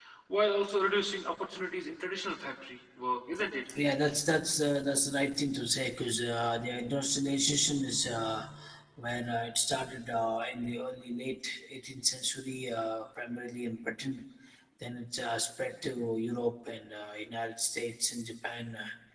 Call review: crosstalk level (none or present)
none